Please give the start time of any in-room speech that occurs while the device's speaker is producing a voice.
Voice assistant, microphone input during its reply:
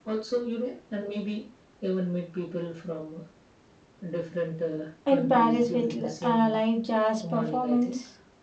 5.1 s

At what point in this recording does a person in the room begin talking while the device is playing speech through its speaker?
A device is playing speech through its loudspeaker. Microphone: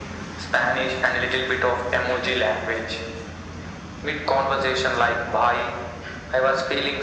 none

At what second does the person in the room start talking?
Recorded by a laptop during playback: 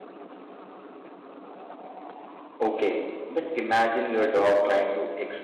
2.6 s

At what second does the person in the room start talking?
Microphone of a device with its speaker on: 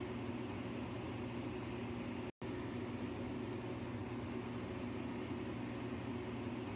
none

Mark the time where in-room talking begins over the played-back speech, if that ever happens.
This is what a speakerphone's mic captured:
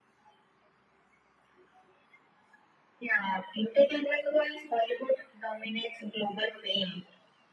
none

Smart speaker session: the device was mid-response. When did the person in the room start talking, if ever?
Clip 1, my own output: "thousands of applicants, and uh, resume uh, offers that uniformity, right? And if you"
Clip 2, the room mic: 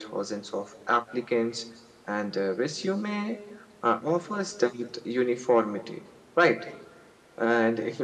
none

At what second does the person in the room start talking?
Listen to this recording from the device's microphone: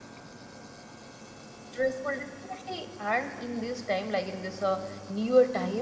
1.7 s

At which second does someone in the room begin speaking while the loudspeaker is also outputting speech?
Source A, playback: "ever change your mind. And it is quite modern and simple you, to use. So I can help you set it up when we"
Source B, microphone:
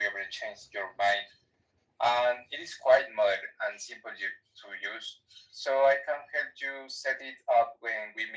none

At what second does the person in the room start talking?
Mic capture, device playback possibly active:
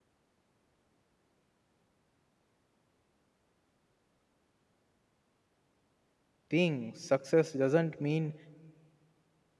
6.5 s

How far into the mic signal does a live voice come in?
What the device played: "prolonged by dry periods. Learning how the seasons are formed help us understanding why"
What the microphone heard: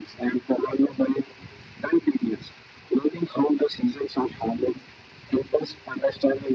none

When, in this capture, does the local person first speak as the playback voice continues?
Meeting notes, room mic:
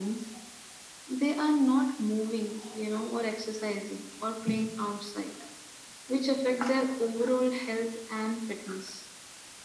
none

